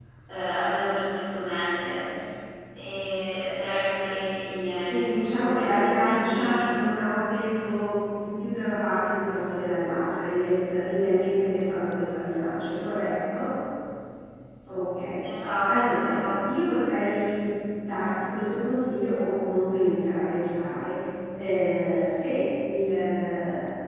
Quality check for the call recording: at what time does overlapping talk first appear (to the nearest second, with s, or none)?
5 s